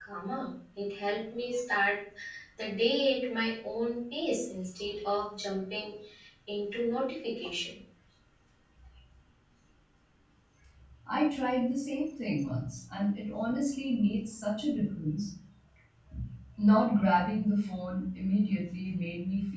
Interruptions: none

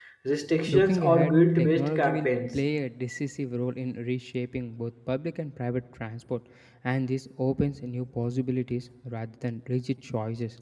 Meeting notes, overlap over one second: present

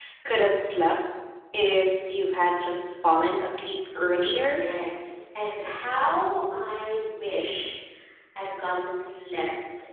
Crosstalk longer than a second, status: none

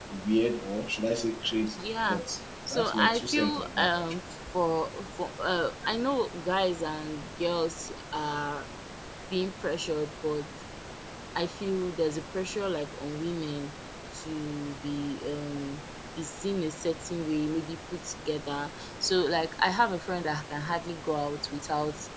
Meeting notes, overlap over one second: present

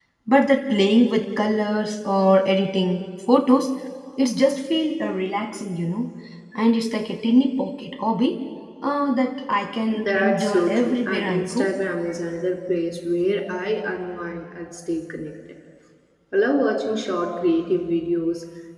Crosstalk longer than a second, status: present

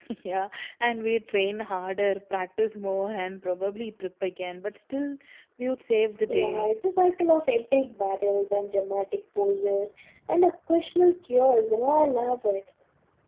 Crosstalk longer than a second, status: none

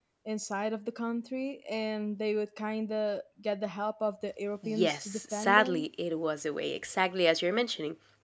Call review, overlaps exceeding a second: present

